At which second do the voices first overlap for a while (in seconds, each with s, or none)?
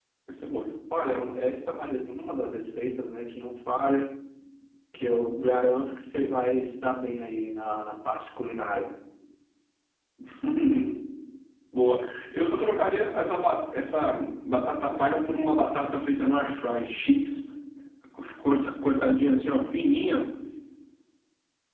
none